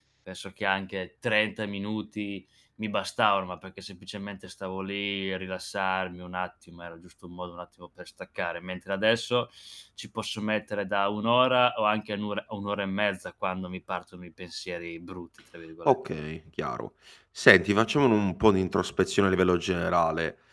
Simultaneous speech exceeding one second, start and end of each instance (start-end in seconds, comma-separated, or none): none